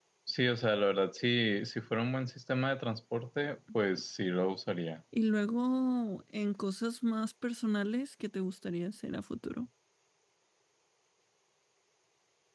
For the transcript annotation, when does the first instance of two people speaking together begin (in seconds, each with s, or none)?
none